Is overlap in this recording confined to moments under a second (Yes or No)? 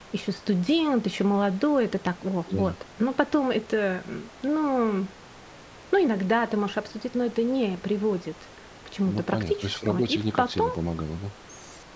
No